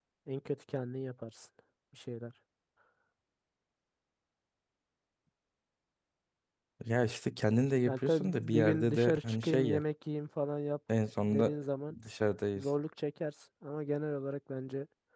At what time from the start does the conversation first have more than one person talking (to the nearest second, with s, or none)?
8 s